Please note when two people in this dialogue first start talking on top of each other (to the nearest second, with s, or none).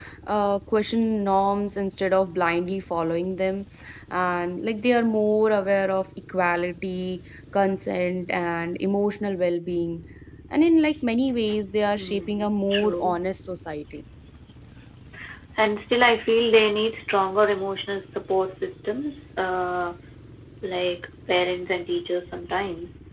12 s